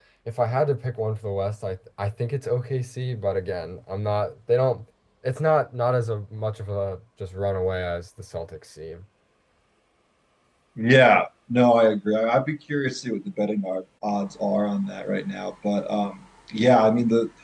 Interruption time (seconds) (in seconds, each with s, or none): none